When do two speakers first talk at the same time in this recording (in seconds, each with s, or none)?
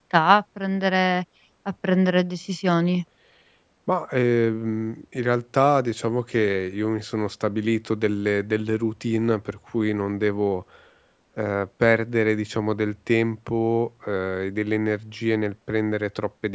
none